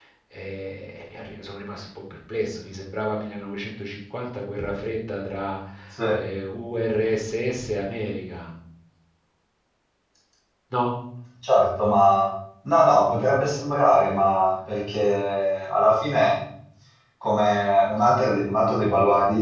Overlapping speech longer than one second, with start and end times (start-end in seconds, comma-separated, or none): none